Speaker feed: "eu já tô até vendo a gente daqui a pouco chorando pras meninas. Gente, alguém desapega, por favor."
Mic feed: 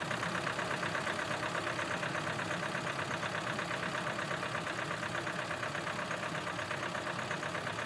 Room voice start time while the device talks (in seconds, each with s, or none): none